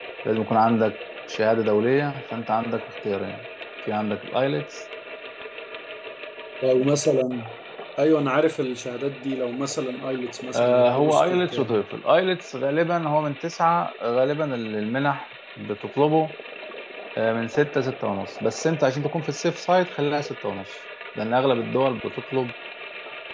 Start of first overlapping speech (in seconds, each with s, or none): 10.5 s